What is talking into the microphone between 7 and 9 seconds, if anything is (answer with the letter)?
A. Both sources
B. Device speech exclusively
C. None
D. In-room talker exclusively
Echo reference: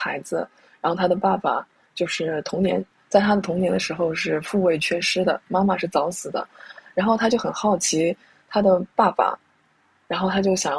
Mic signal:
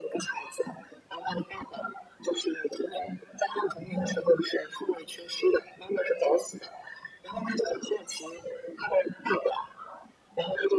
B